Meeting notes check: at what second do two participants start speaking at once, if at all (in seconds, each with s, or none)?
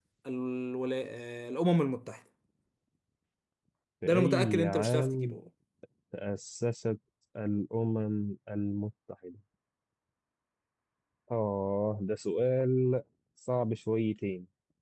4.0 s